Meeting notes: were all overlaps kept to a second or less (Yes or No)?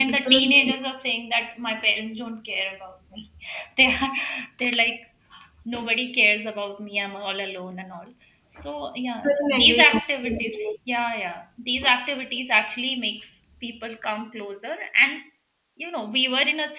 No